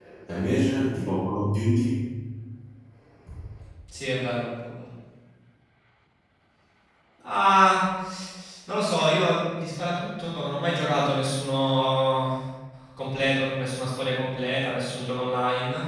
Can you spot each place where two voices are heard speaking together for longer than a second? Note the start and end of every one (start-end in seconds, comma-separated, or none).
none